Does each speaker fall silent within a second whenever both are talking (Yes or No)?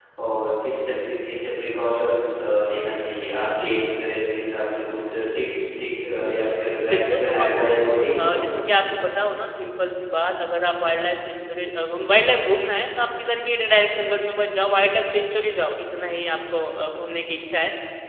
No